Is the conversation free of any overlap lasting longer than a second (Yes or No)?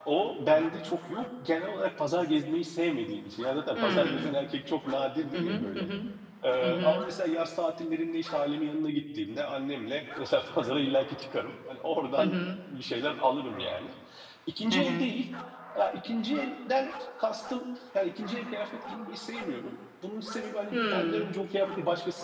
Yes